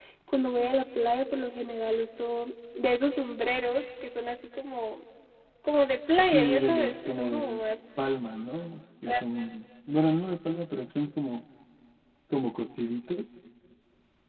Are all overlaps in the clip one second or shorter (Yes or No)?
No